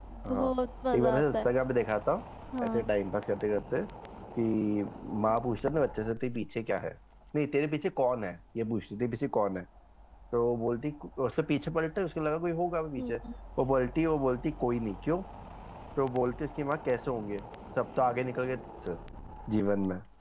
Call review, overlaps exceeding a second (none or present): none